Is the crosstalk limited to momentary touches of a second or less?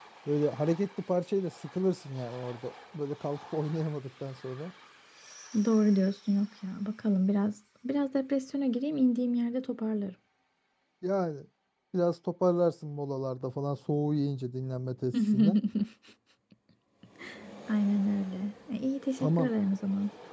Yes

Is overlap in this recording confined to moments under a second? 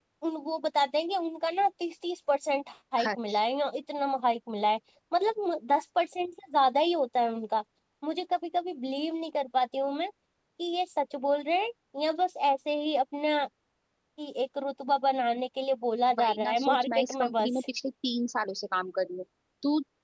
No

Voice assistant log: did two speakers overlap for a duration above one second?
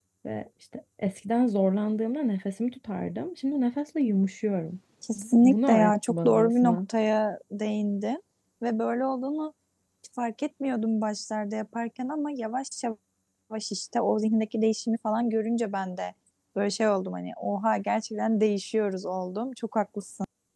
Yes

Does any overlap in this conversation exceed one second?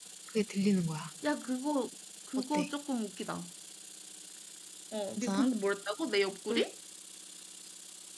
No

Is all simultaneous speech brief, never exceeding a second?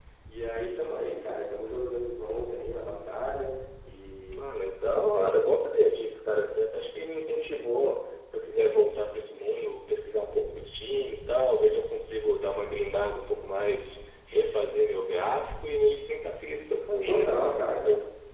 Yes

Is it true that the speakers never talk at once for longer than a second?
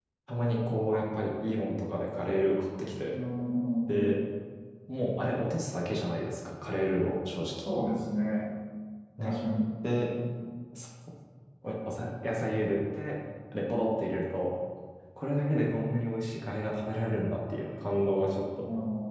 Yes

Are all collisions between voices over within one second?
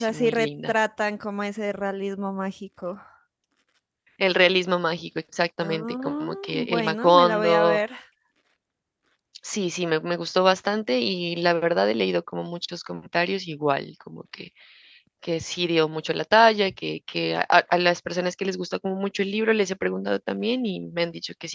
No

